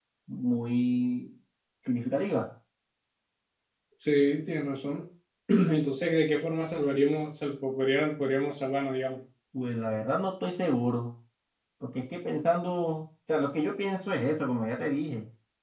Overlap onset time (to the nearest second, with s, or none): none